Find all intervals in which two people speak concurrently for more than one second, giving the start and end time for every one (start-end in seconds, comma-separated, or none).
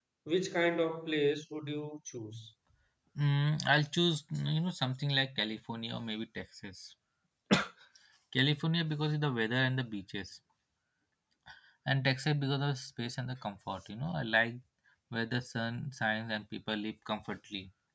none